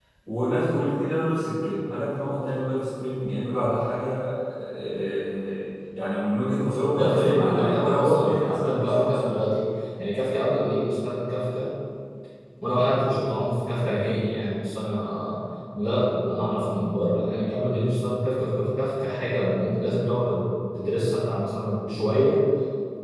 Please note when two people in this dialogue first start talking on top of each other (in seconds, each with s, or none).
6.9 s